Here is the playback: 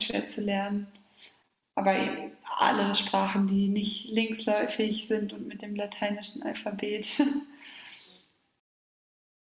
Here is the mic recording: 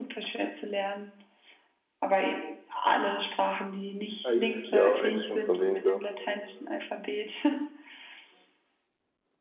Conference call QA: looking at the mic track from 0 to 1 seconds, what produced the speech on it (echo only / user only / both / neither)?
echo only